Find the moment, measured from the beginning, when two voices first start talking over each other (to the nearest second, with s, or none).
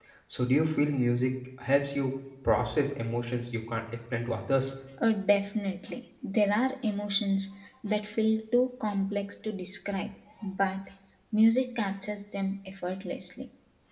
none